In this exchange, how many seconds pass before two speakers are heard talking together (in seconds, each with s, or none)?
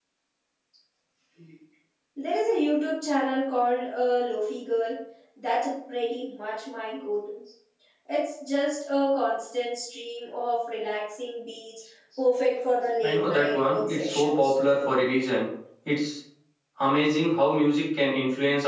13.0 s